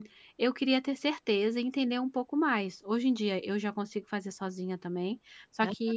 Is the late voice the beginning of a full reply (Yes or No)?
No